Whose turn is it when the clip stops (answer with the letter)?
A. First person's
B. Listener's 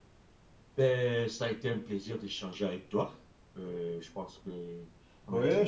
B